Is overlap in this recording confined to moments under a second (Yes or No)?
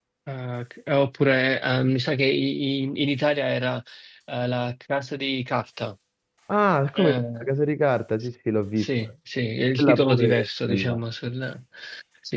No